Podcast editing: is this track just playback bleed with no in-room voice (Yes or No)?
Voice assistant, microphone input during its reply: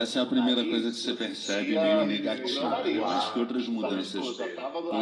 No